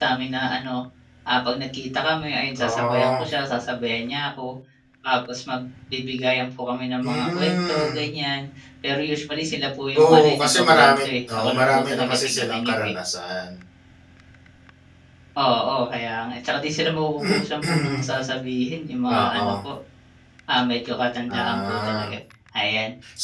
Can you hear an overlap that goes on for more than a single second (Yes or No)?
Yes